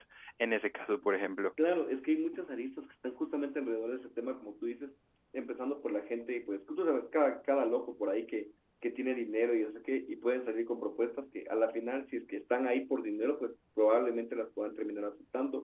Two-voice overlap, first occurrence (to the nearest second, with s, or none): none